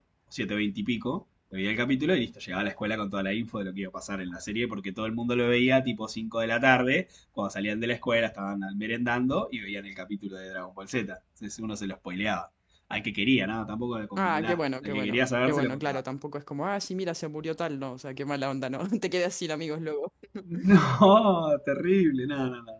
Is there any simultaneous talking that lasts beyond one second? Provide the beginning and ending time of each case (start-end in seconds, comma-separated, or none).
14.2-16.0